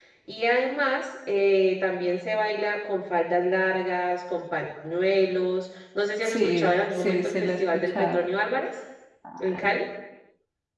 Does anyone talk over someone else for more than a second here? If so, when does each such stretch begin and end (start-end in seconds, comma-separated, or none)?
6.2-8.2